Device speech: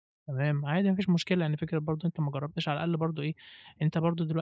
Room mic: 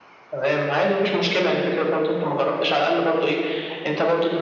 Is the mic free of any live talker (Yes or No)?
Yes